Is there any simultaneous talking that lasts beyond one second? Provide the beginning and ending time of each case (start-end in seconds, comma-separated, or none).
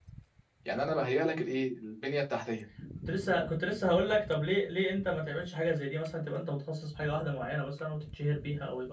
none